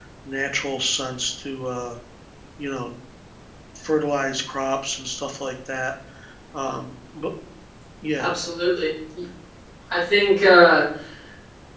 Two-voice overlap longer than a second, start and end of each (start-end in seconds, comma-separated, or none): none